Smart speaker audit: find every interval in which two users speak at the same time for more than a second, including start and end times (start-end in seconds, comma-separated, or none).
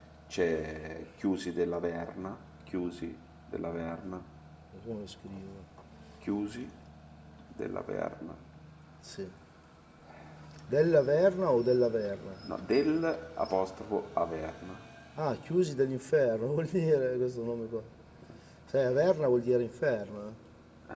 none